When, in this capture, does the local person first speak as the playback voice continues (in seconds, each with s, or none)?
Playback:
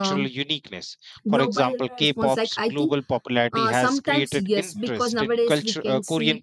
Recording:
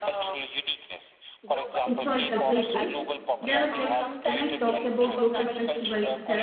1.8 s